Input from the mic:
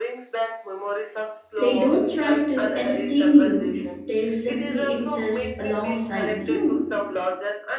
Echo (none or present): present